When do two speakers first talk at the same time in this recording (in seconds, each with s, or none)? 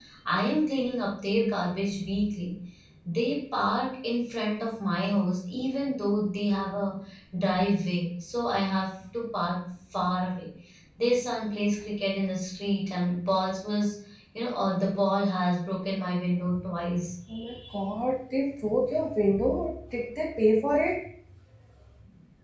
none